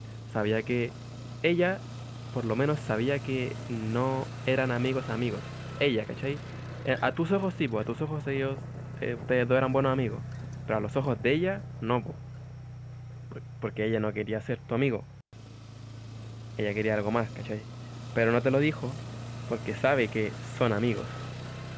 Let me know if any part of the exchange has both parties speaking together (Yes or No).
No